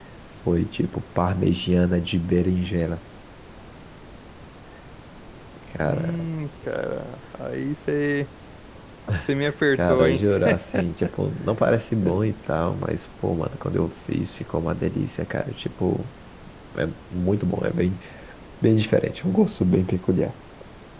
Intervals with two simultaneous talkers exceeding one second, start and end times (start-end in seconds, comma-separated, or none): none